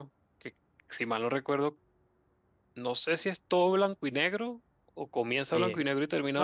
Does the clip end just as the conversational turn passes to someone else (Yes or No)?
Yes